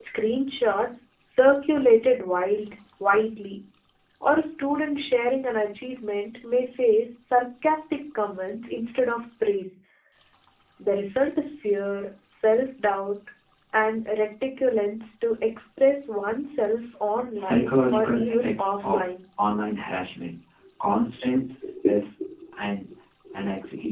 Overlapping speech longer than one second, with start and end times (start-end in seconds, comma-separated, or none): 17.3-19.0